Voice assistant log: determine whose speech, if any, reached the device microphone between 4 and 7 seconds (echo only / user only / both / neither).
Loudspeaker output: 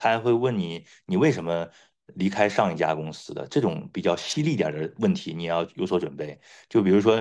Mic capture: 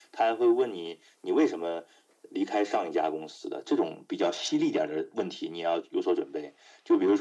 echo only